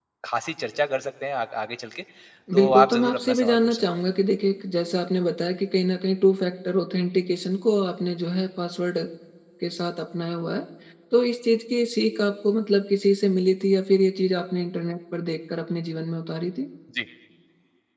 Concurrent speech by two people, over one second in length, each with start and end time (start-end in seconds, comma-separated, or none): 2.5-3.8